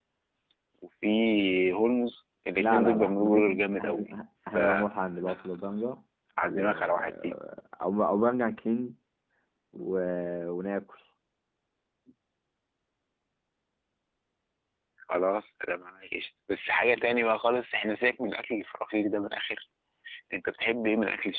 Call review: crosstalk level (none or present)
present